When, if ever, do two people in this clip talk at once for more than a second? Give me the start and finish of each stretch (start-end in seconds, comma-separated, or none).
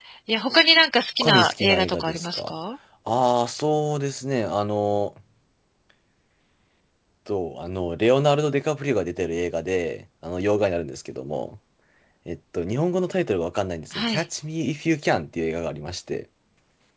1.2-2.5